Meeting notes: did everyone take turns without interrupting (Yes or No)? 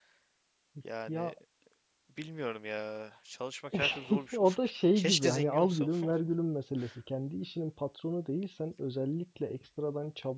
No